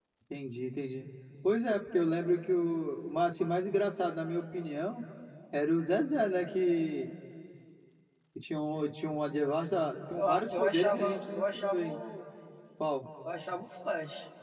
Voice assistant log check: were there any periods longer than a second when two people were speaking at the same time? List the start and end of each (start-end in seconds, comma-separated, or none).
10.1-12.0